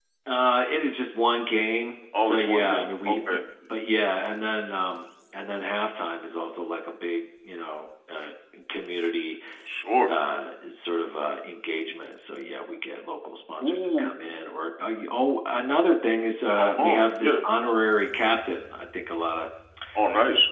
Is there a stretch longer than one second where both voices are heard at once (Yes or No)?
Yes